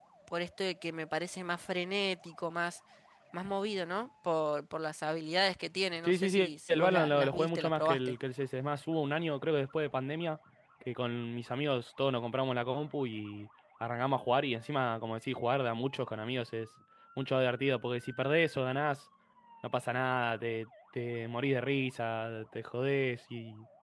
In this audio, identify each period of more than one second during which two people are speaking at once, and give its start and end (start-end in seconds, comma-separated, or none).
6.0-8.1